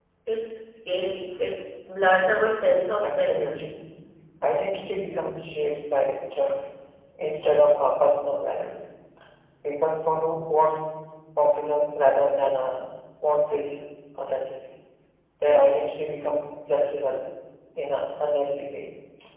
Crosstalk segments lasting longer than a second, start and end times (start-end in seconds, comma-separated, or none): none